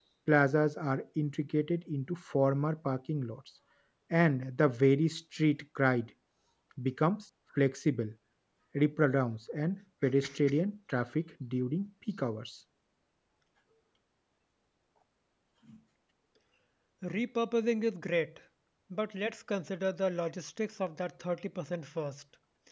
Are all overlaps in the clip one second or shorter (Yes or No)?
Yes